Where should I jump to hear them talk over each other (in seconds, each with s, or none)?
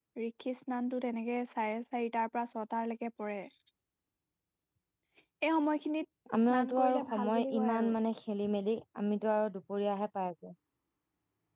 6.3 s